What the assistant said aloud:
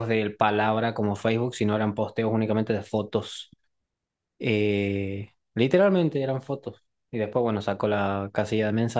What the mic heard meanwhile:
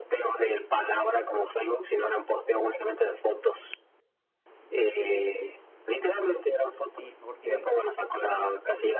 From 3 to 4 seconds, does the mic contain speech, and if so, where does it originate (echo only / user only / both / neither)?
echo only